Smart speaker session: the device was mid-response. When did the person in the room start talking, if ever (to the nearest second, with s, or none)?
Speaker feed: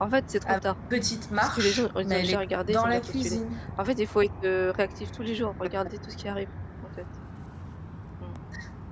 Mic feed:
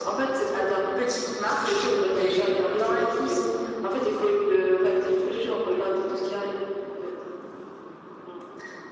none